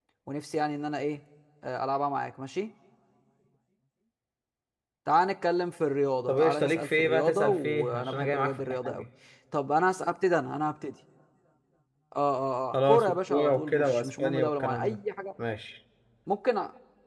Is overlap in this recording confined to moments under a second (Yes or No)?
No